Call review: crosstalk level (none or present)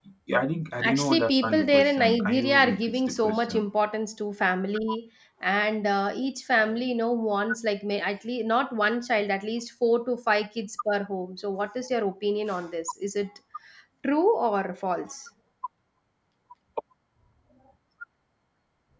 present